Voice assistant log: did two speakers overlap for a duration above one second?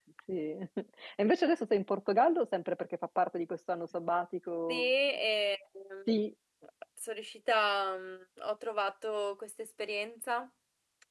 No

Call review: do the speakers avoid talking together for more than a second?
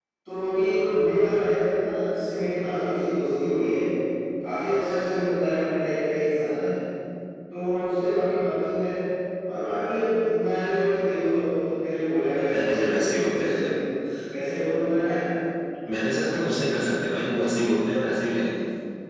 No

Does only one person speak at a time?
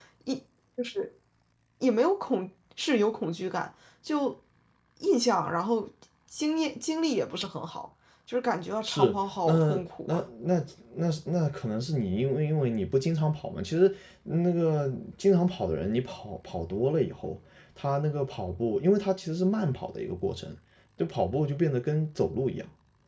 No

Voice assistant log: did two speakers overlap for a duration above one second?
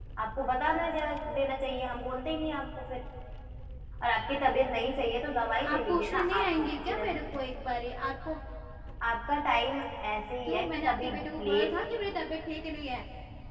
Yes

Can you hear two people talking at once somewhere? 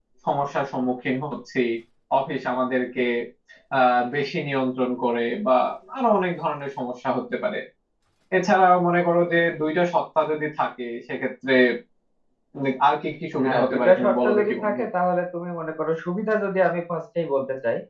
Yes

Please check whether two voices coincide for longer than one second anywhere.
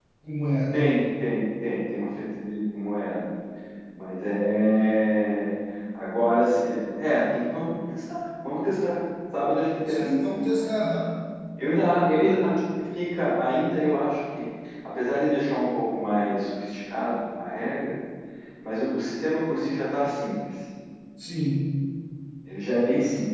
No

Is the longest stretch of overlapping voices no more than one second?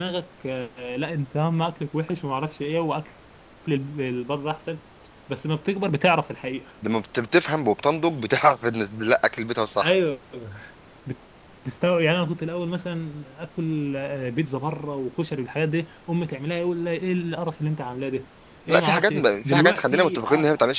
No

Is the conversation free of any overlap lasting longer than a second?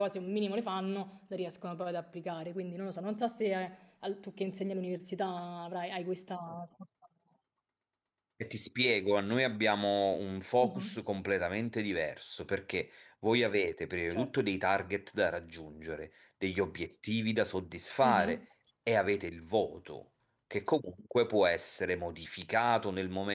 Yes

